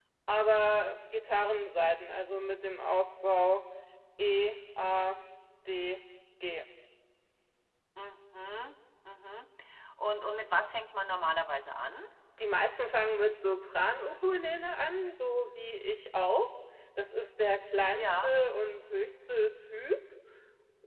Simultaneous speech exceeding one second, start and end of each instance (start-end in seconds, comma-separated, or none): none